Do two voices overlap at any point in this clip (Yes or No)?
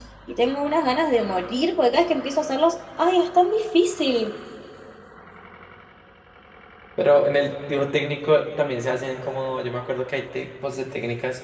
No